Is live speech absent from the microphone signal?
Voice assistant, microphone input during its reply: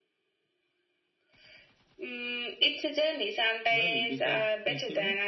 No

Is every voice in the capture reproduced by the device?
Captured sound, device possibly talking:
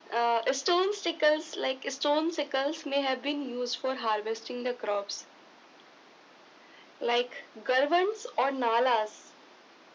Yes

